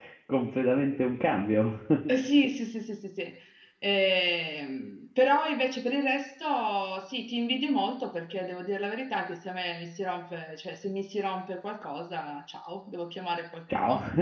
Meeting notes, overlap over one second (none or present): none